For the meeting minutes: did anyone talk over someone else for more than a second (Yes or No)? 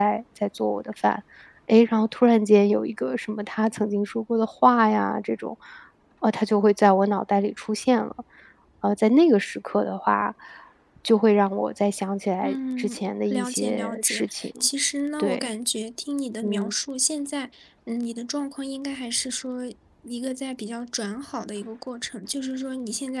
Yes